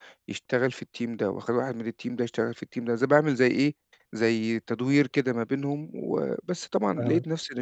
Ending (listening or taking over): listening